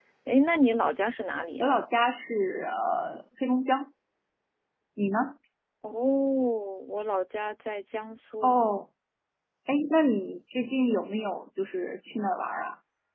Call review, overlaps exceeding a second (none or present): none